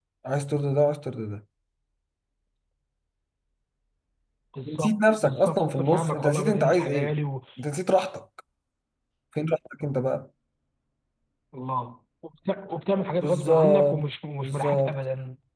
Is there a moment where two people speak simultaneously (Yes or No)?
Yes